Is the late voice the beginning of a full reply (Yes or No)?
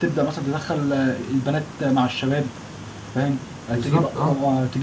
No